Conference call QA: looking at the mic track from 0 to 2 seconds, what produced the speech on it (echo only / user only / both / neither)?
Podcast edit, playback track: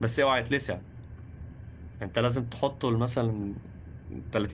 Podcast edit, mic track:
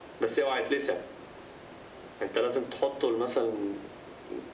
echo only